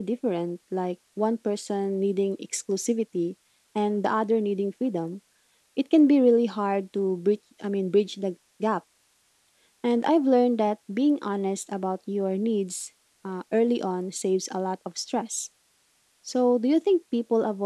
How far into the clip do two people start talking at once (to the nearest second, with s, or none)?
none